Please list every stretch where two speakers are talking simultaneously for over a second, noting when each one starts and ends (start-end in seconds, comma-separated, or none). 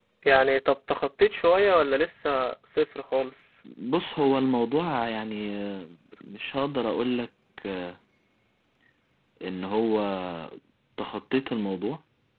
none